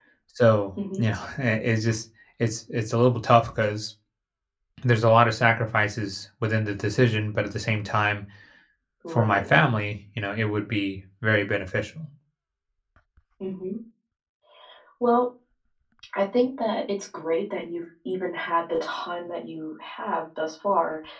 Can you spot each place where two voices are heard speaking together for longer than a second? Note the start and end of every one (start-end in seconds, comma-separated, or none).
none